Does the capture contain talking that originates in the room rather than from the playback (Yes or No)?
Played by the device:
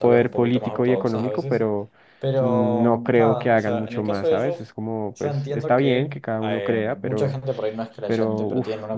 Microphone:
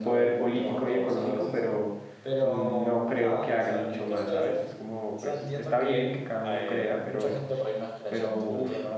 No